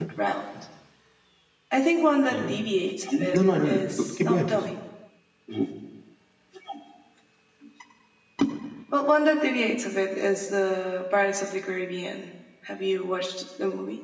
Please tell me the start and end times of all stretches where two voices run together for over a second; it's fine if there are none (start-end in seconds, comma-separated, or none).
3.3-4.6